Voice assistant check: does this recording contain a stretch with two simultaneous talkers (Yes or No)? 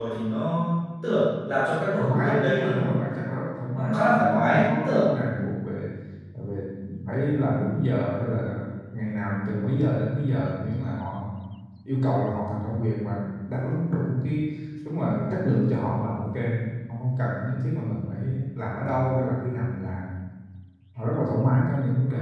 Yes